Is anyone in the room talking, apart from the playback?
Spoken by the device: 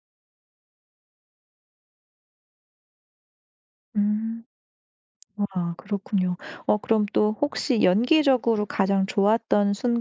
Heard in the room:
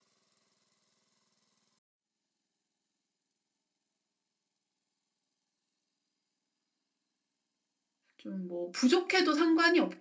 Yes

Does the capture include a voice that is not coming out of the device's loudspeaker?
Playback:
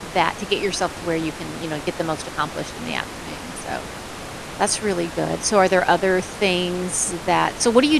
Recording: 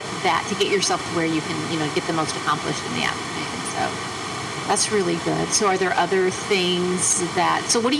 No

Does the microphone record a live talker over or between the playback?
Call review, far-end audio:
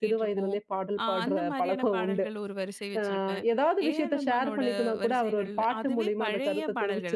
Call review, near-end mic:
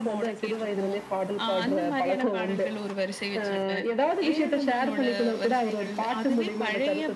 No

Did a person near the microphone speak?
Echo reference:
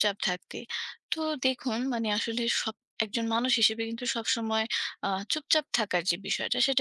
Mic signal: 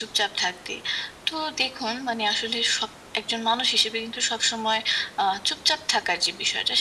No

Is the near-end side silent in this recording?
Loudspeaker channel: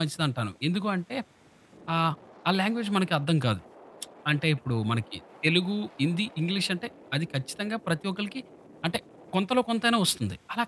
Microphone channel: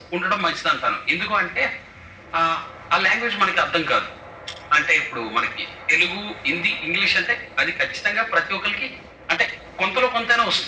Yes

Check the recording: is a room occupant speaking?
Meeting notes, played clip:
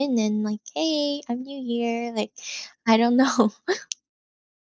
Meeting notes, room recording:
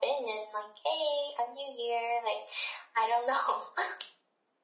No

